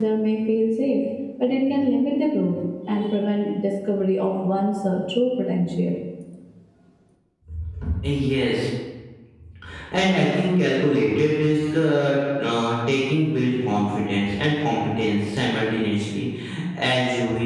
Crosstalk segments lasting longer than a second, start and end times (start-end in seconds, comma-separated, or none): none